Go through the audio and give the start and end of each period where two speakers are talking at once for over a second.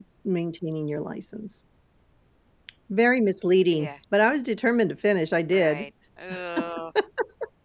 none

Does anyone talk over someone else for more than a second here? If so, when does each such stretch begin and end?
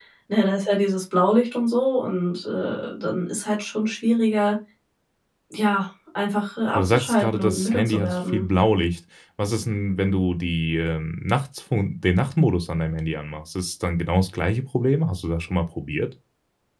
6.7-8.4

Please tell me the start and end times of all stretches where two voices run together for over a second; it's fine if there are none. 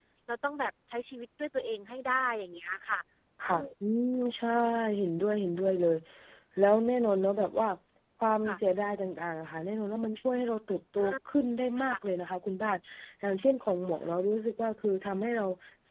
none

